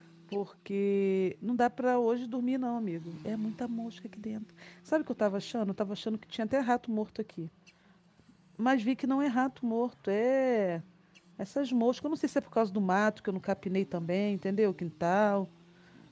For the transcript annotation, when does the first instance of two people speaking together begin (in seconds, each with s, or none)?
none